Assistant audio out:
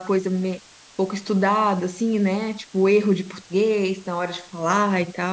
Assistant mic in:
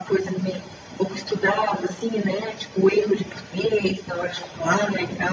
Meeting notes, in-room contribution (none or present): none